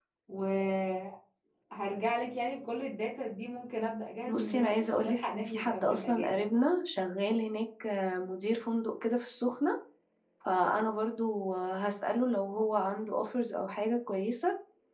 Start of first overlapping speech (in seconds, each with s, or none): 4.3 s